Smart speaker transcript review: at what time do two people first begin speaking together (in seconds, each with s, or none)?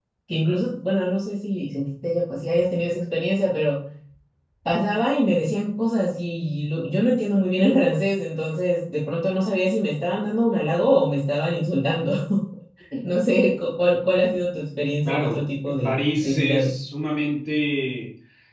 15.0 s